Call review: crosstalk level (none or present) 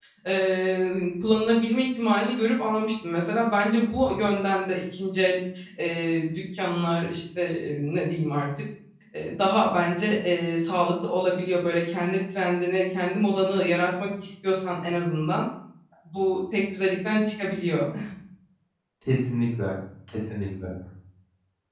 none